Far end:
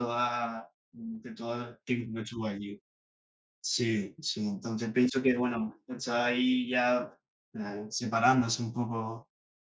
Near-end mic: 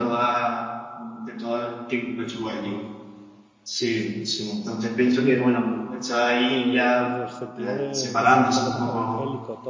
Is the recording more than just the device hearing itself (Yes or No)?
Yes